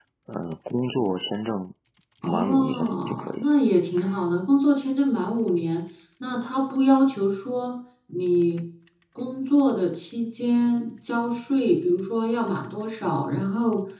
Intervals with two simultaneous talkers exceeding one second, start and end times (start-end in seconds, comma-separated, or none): 2.2-3.4